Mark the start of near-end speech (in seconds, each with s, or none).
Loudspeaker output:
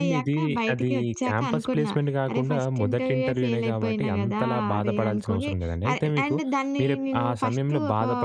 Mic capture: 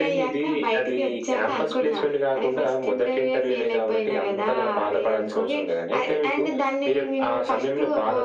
none